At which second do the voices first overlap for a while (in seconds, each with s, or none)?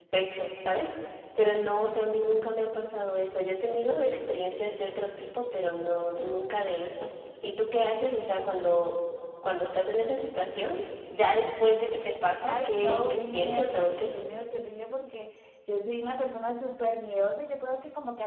12.5 s